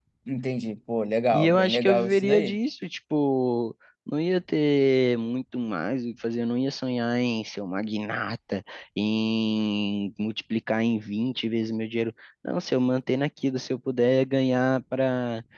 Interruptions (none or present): present